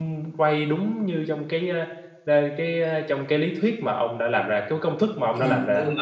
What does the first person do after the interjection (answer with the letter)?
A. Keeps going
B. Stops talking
B